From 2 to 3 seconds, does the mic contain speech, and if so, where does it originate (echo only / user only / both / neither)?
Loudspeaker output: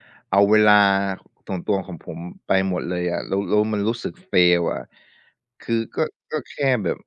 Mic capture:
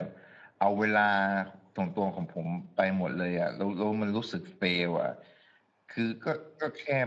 echo only